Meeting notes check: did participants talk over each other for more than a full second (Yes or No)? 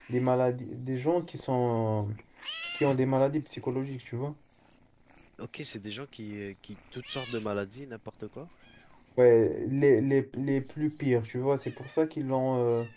No